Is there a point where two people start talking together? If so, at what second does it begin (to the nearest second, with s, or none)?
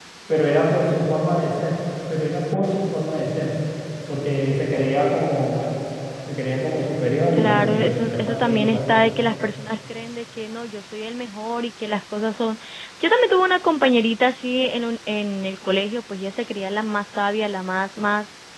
7 s